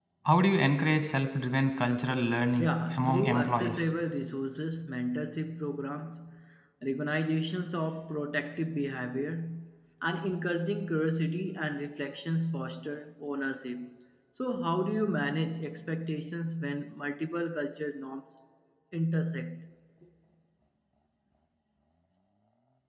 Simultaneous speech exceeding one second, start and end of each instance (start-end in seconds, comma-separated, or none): 2.6-3.8